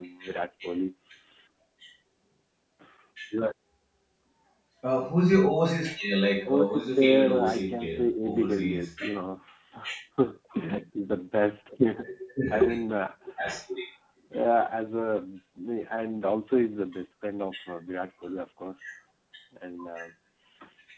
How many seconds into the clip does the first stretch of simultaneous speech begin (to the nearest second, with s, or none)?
6 s